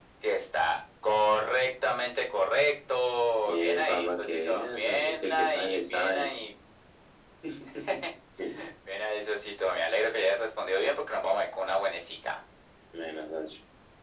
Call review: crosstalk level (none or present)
present